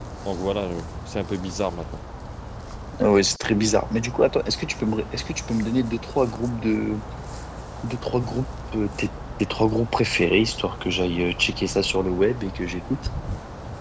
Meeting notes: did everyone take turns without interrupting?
Yes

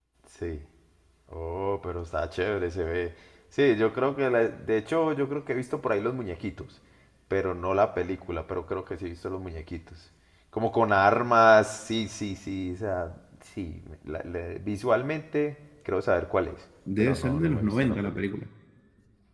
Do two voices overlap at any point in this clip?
Yes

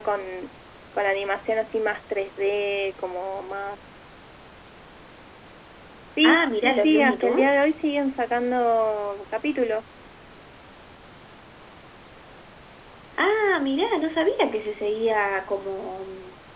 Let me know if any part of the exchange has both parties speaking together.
Yes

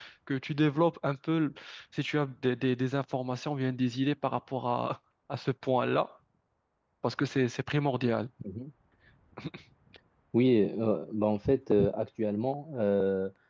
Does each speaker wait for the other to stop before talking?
Yes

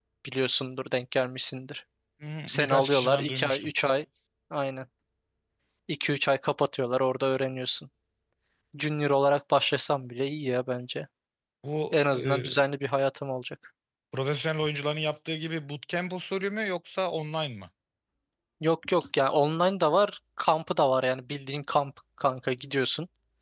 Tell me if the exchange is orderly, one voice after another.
No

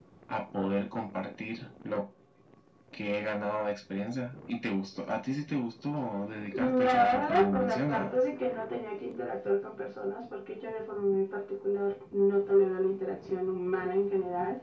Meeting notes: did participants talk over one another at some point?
Yes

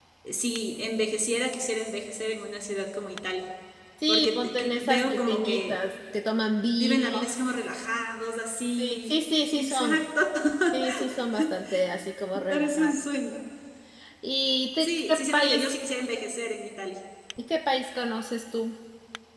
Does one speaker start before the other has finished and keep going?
Yes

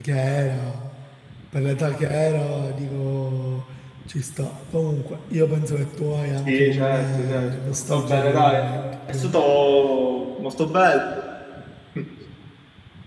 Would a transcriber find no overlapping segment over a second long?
No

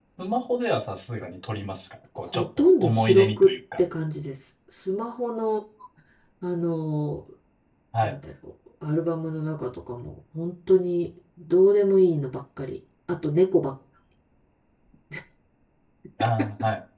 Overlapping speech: Yes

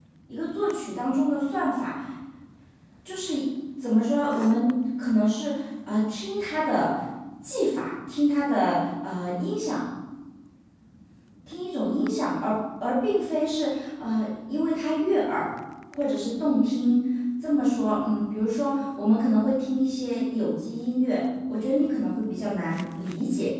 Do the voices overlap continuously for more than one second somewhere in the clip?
No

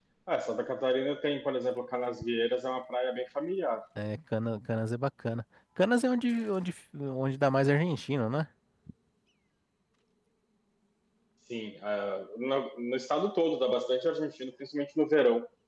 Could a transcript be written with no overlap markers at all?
Yes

